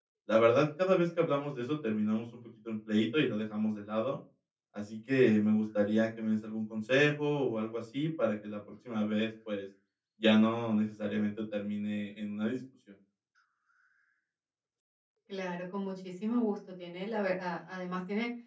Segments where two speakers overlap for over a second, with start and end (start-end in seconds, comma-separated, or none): none